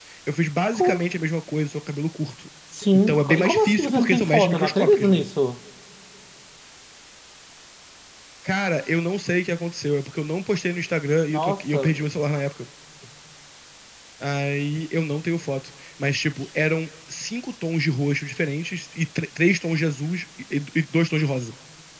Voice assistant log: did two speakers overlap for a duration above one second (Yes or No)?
Yes